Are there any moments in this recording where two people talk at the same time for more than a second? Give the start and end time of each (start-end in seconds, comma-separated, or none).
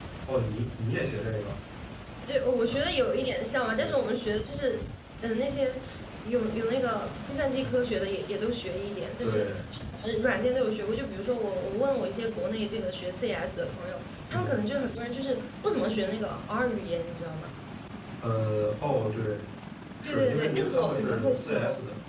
20.0-21.6